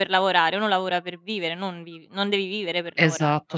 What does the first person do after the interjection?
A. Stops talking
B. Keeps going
A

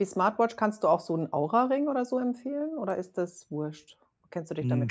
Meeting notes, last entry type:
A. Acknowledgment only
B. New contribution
B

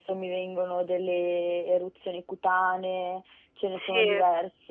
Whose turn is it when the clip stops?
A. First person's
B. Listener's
A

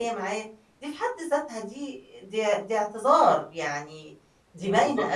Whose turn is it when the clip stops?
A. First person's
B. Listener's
B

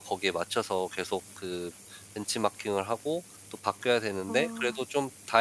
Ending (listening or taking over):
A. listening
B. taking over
A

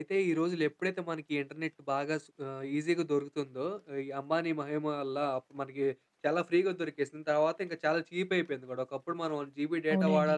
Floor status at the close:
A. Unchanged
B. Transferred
B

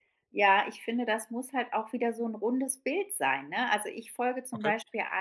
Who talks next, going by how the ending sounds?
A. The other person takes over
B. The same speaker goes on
B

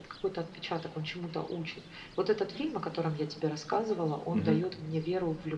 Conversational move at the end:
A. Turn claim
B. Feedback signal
B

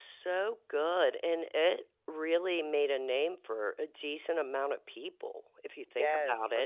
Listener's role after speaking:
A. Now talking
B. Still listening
A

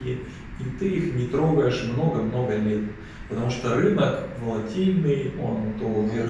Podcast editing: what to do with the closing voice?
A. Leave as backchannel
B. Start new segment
A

